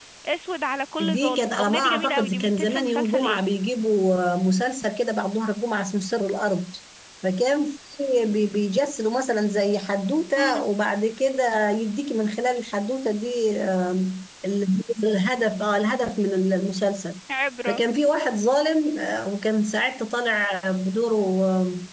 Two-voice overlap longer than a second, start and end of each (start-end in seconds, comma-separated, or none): 1.0-3.4